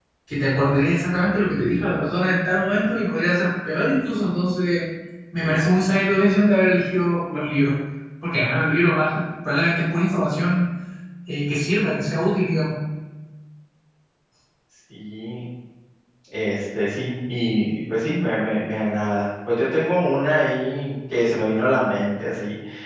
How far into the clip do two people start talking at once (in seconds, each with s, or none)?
none